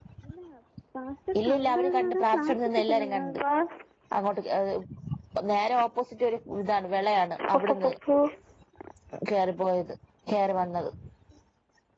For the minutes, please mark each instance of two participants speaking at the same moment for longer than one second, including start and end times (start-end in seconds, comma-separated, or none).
1.4-3.4